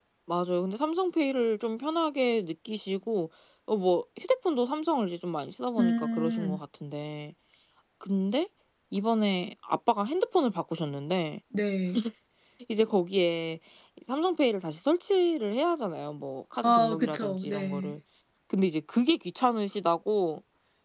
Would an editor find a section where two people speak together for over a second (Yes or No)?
Yes